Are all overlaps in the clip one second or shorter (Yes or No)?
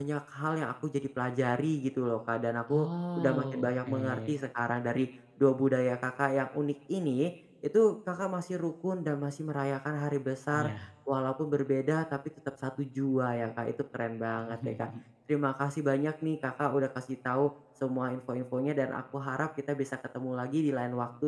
No